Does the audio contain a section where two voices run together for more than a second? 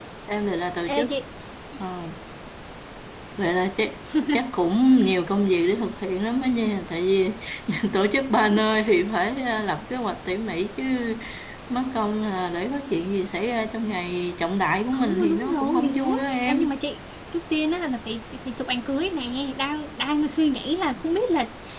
Yes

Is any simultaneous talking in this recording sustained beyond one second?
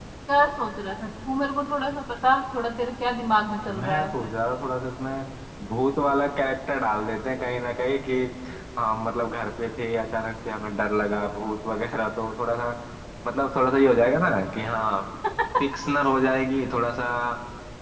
No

